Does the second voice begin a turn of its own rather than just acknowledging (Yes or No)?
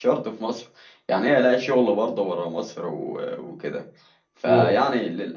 No